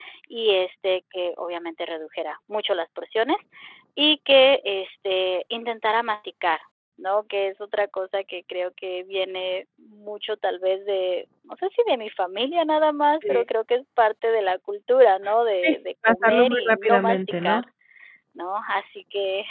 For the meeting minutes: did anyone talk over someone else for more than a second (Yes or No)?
Yes